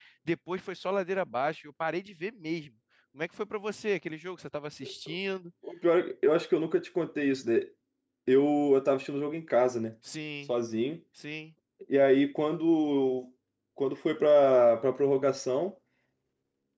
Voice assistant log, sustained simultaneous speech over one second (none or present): none